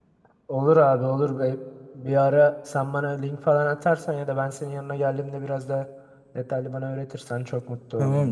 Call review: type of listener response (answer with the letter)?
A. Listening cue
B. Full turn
B